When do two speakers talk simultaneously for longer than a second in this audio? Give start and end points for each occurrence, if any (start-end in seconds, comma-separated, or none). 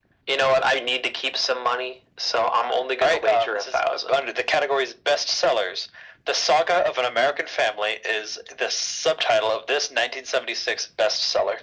3.0-4.2